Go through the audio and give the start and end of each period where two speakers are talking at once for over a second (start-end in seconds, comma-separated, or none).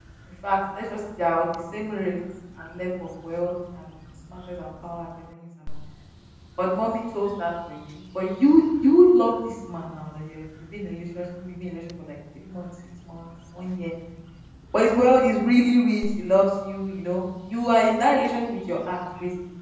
none